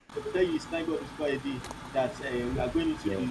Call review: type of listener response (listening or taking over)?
listening